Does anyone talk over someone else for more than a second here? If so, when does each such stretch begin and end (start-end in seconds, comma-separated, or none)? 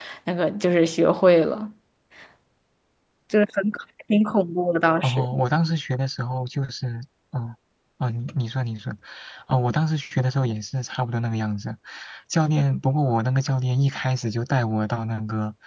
none